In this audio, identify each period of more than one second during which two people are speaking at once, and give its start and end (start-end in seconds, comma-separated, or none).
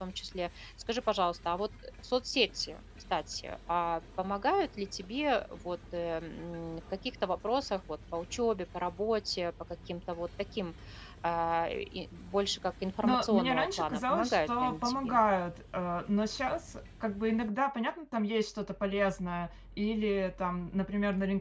13.0-15.2